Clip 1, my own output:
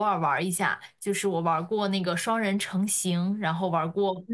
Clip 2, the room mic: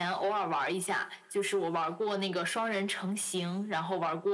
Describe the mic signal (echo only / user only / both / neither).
echo only